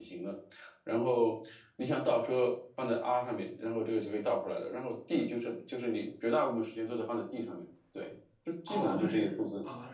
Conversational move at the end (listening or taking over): taking over